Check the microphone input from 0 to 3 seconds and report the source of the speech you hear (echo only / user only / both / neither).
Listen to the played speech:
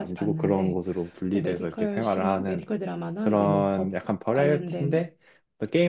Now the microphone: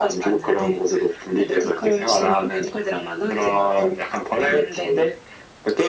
echo only